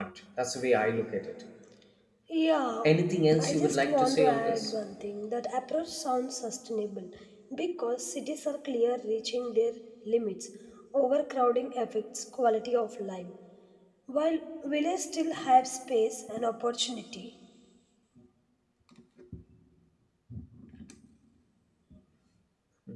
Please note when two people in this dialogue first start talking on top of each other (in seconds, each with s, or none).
3.4 s